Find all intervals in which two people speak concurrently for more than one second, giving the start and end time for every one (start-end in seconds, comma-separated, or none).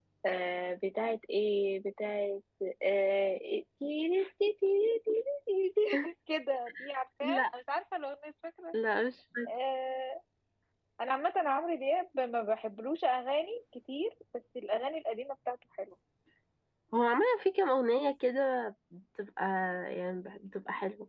none